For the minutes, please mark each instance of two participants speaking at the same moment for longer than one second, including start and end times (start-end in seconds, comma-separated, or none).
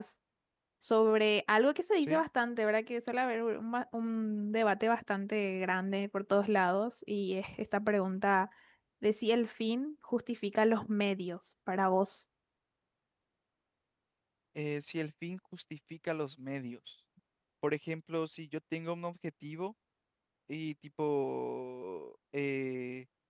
none